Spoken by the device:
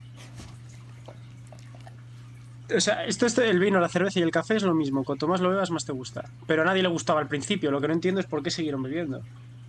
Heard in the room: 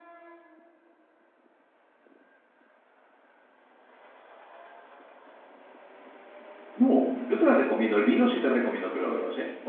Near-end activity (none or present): present